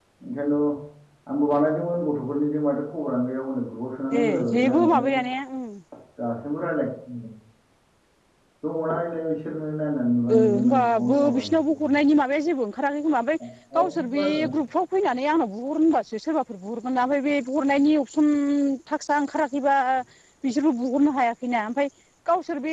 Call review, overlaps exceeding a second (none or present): present